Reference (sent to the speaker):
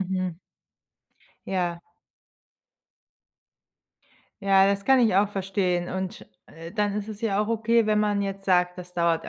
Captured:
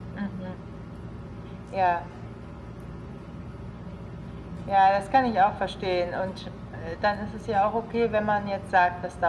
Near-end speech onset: none

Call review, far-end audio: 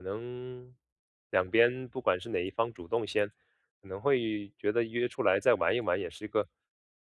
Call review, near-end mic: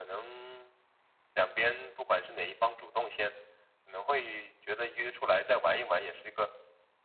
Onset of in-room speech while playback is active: none

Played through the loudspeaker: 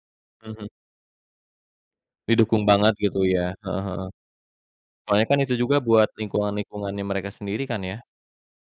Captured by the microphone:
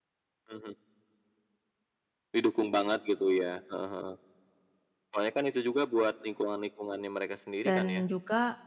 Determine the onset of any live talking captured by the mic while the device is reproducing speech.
7.6 s

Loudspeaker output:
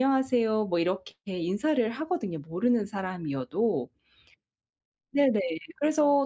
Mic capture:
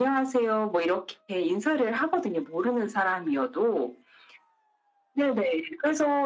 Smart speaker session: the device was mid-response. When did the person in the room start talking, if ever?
none

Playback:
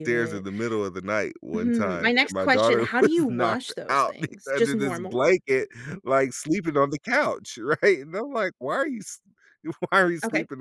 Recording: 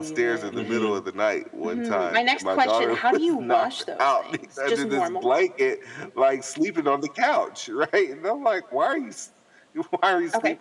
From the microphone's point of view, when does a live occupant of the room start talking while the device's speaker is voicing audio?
0.5 s

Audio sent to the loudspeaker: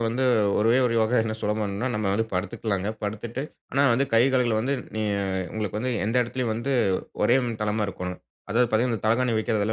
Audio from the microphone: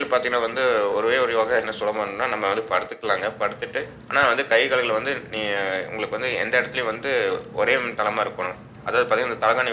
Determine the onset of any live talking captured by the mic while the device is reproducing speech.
none

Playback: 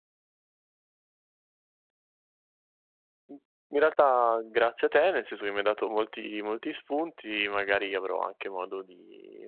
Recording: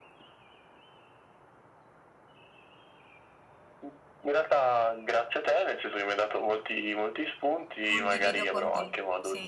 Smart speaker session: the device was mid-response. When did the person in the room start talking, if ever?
7.9 s

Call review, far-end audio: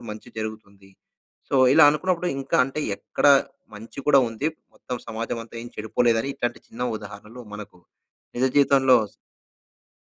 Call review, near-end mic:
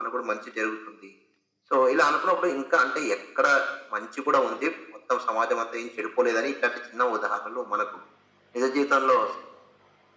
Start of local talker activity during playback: none

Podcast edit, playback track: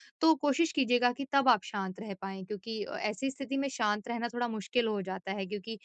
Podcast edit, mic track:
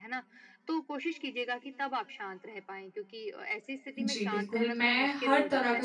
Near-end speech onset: 4.0 s

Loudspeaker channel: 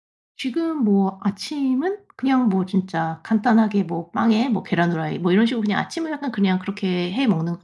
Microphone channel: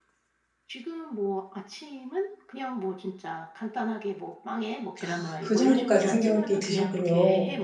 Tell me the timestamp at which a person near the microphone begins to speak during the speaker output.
5.0 s

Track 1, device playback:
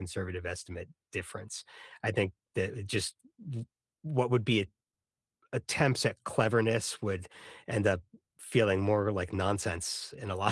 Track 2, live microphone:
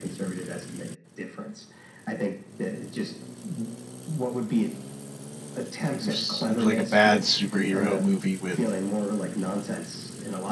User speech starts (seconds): 6.0 s

